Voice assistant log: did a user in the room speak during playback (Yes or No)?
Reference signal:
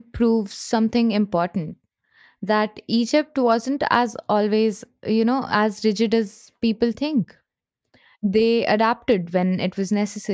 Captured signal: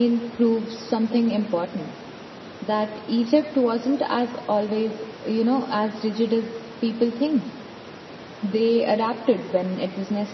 No